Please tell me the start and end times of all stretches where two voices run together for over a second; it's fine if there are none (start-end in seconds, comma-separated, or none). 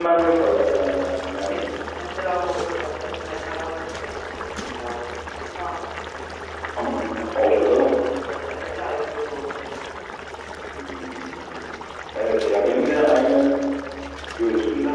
6.8-8.1